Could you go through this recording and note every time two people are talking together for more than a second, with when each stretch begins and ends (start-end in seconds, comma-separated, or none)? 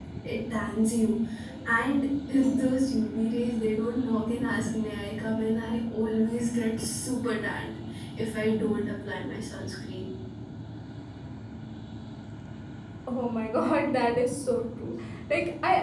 none